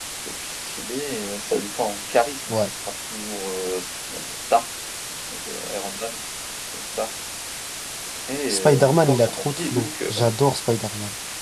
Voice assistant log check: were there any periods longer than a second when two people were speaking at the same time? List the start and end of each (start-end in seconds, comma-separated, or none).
8.5-10.1